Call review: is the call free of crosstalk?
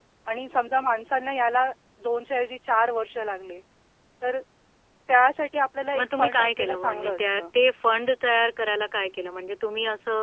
No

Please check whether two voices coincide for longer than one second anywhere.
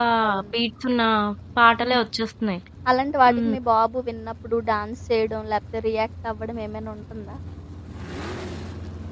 No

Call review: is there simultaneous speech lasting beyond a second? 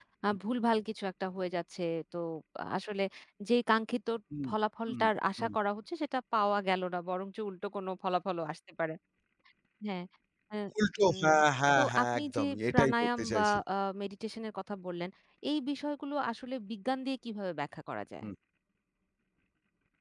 Yes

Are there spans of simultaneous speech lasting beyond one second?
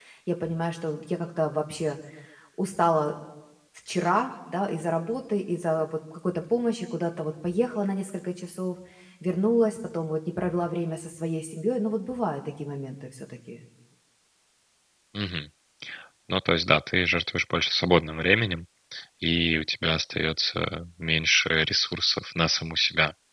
No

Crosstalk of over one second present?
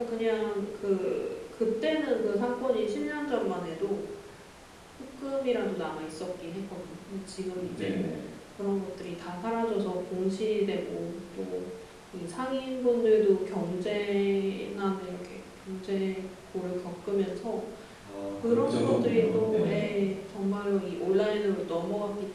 Yes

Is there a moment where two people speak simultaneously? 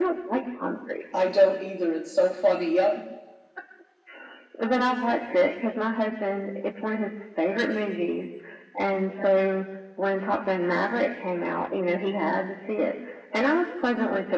No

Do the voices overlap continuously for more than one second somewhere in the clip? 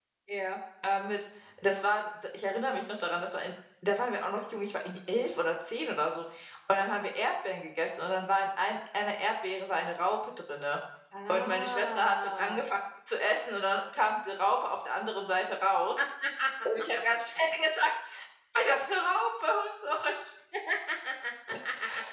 Yes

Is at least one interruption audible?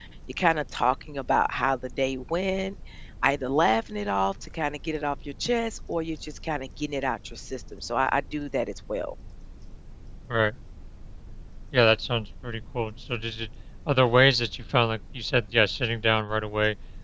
No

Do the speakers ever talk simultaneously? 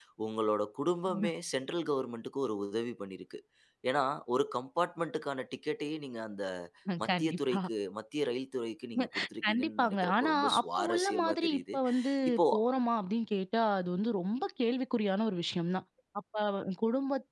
Yes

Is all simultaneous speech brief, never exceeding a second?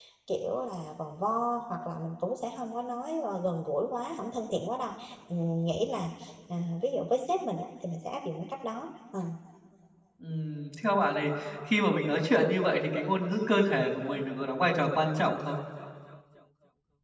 Yes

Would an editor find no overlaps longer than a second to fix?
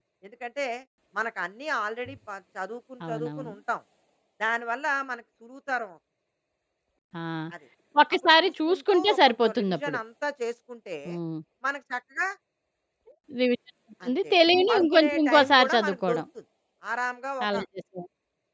No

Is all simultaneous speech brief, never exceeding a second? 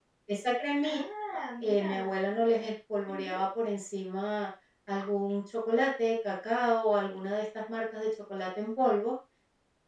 Yes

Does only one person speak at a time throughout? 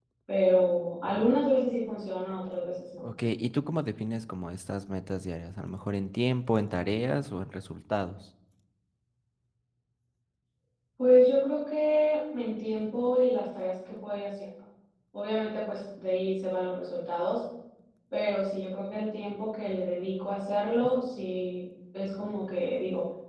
Yes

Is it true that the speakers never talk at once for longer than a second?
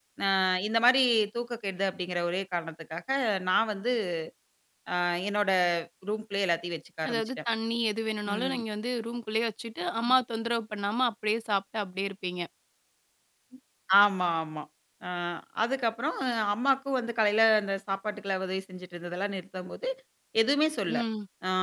Yes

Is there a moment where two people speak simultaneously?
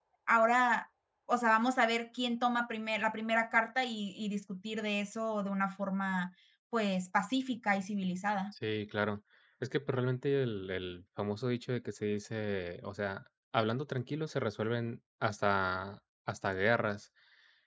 No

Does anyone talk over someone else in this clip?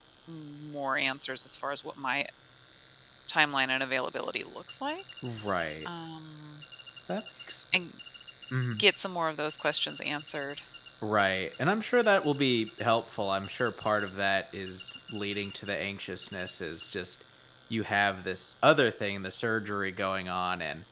No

